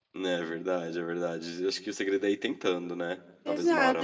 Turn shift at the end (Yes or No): Yes